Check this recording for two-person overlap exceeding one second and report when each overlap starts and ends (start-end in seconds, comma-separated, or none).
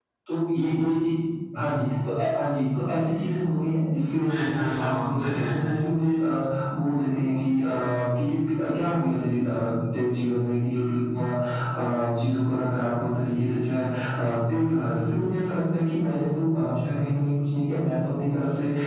4.2-5.8